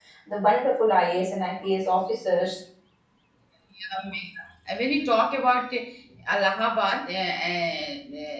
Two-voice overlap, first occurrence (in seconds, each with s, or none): none